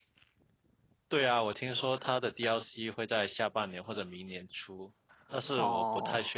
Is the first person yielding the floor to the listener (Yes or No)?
No